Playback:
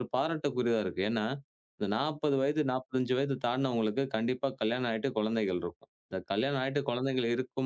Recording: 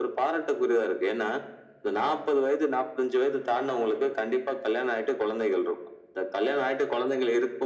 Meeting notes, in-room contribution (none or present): none